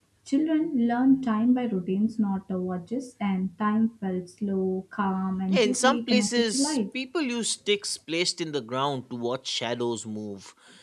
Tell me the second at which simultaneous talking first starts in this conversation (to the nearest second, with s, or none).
6 s